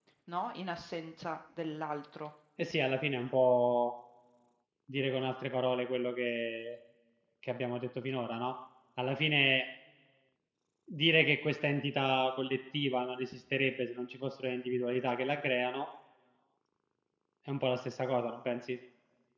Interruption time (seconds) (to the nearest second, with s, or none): none